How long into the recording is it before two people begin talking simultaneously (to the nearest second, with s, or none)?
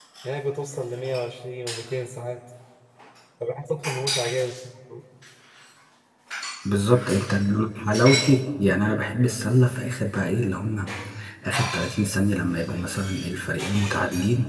none